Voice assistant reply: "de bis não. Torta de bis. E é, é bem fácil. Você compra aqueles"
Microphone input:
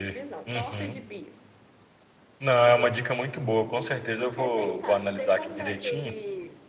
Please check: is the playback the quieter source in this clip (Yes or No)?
Yes